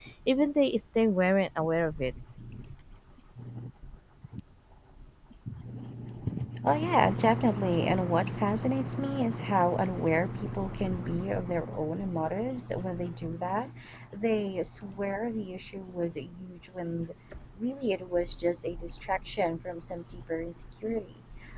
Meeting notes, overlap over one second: none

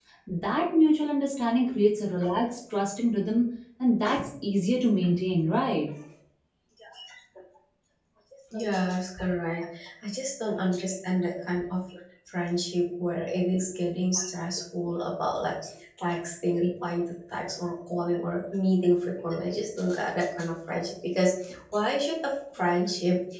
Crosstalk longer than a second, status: none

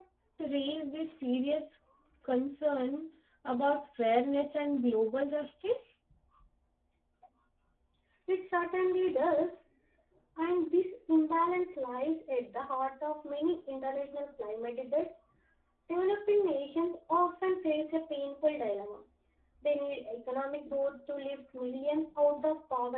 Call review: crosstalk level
none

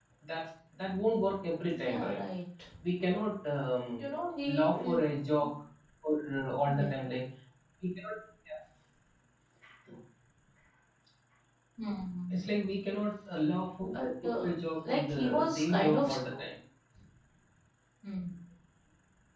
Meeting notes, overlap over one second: present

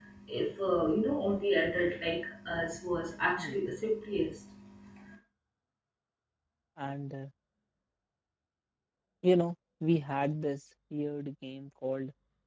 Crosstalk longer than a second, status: none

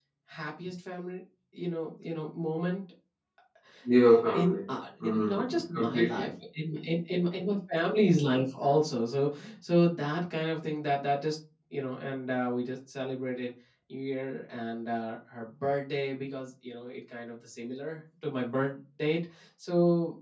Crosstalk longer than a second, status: present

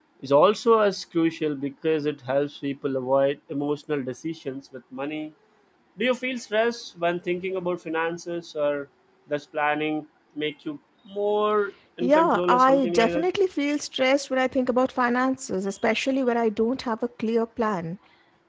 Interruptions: present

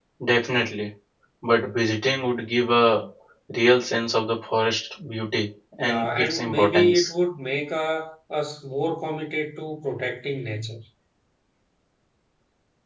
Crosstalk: present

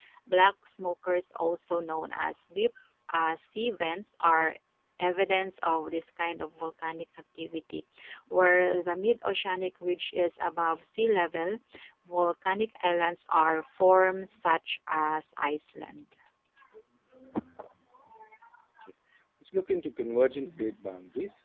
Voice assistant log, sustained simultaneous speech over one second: none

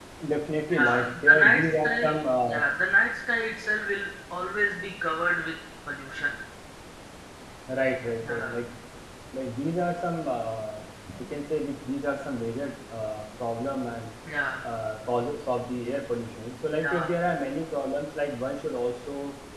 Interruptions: present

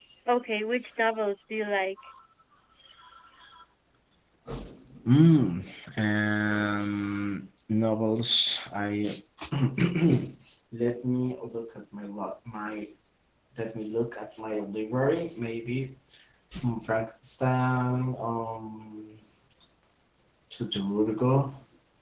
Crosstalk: none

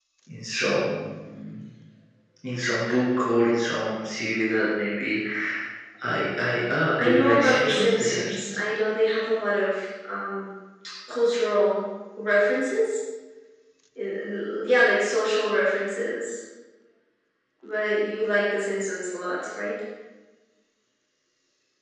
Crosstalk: present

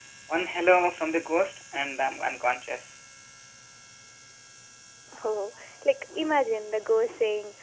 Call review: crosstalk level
none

